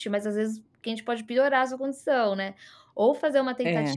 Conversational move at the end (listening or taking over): listening